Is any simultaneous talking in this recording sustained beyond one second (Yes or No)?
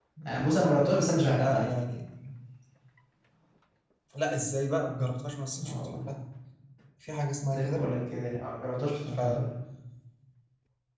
No